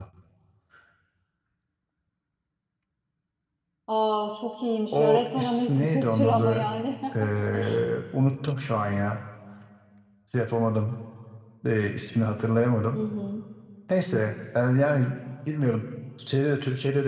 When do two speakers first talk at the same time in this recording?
5 s

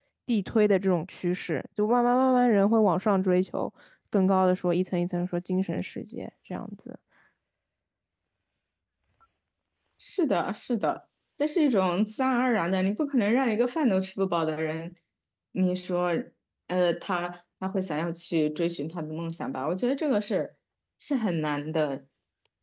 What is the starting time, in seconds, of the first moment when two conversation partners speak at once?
none

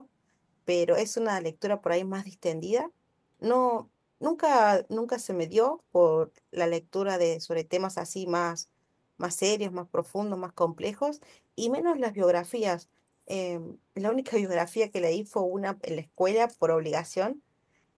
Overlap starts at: none

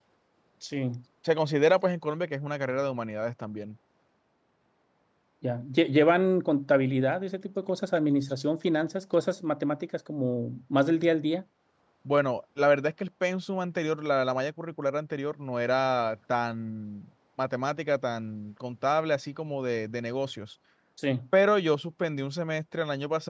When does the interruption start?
none

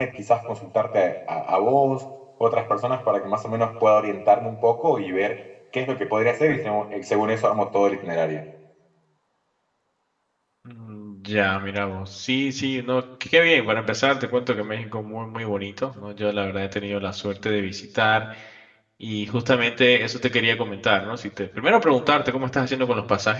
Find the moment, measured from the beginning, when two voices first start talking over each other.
none

